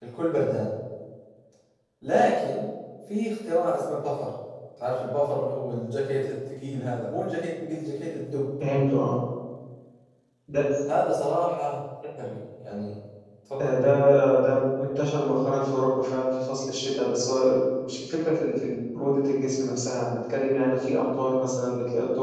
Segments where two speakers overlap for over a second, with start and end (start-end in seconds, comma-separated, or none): none